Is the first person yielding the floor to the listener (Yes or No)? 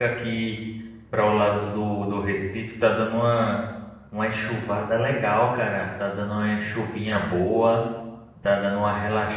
No